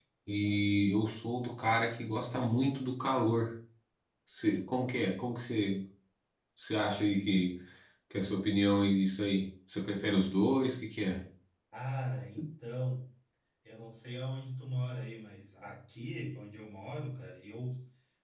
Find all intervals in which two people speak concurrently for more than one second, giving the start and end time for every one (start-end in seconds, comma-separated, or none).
none